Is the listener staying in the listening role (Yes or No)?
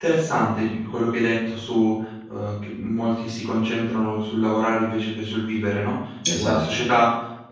Yes